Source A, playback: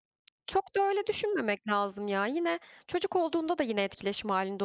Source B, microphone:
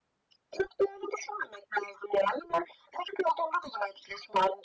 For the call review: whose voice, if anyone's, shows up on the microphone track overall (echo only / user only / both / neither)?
echo only